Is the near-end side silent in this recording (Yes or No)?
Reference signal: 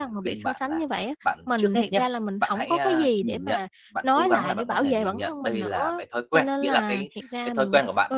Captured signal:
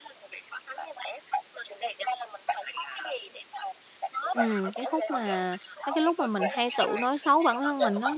No